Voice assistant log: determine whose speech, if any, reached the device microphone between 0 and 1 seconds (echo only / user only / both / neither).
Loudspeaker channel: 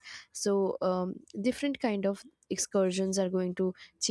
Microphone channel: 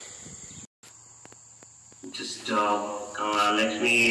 neither